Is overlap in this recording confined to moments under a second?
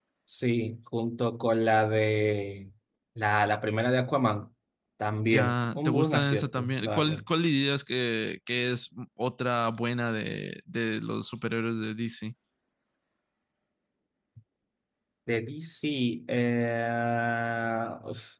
No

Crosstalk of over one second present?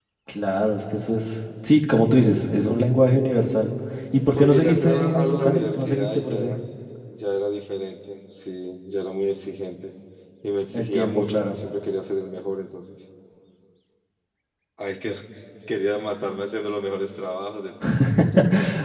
Yes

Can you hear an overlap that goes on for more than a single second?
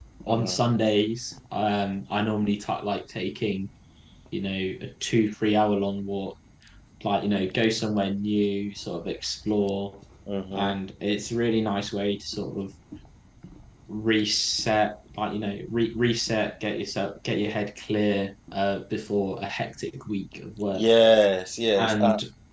No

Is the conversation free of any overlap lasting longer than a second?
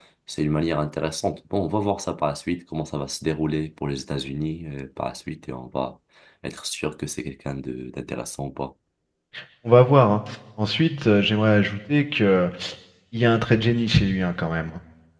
Yes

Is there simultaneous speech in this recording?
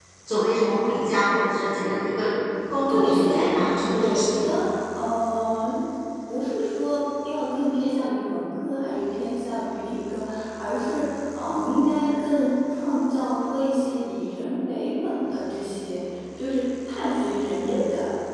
Yes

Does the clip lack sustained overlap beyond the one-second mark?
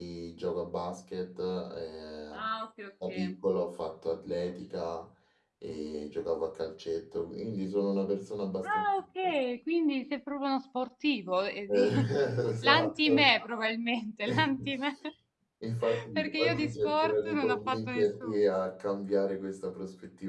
No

